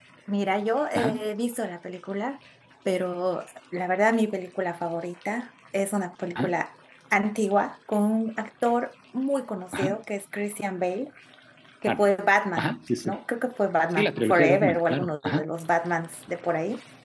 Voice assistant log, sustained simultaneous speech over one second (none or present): present